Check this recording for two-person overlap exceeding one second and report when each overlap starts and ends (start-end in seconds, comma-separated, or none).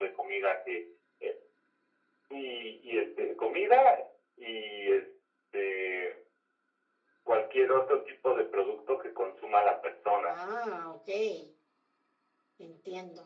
none